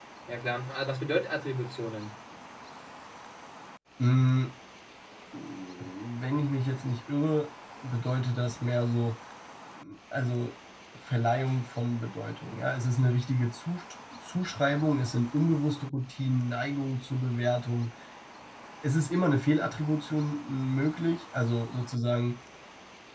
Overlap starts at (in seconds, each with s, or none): none